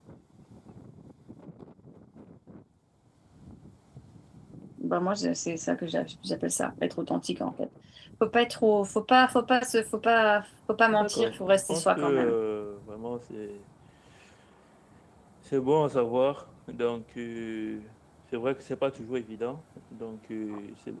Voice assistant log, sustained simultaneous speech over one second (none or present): present